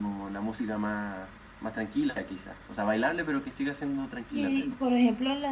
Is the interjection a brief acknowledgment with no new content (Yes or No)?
No